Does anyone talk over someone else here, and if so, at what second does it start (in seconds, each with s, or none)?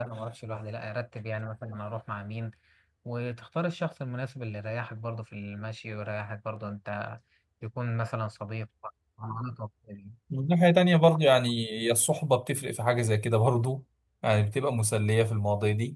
none